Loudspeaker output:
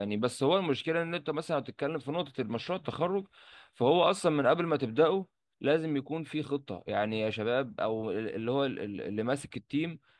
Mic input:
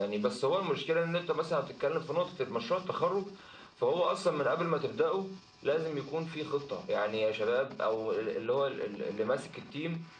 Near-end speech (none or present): none